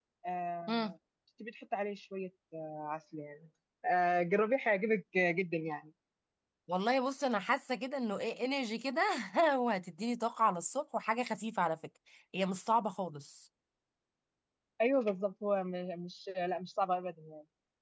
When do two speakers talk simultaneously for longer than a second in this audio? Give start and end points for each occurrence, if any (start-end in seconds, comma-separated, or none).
none